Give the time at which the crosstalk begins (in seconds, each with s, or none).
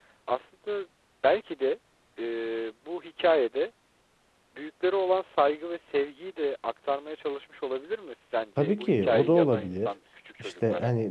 8.6 s